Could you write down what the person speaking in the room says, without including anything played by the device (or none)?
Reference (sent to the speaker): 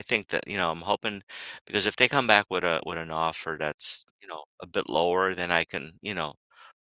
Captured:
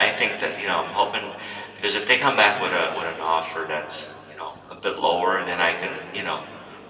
none